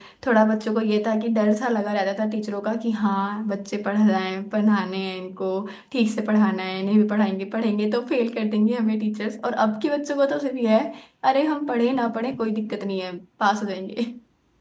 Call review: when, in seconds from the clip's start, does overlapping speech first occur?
none

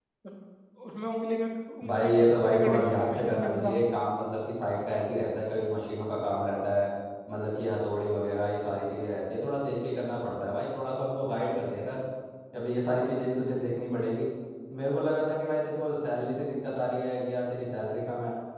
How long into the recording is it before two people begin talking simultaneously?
1.8 s

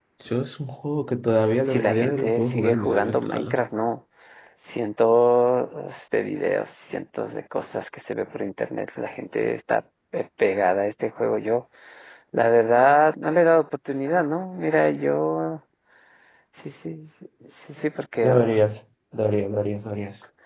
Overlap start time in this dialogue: 1.6 s

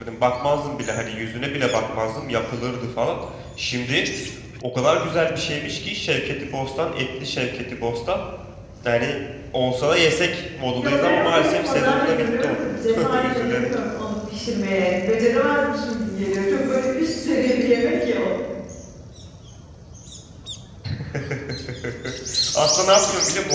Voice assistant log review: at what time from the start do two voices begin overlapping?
10.7 s

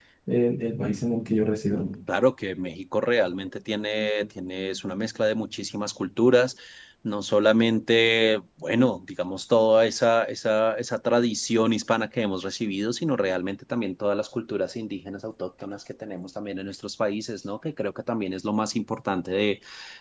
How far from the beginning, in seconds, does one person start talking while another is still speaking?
none

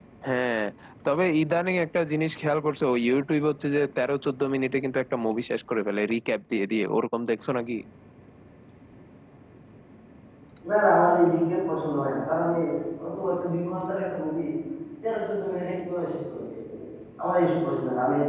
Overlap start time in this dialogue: none

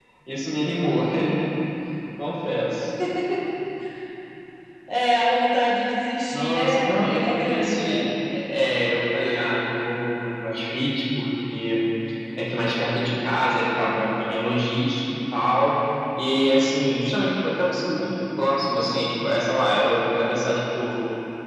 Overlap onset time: 6.3 s

